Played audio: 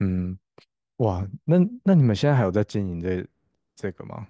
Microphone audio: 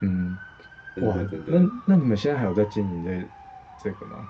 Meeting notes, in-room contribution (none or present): present